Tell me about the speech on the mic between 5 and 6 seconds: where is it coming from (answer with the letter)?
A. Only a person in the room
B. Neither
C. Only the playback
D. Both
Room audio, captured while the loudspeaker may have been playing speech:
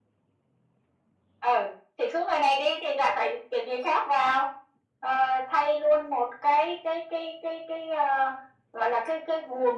C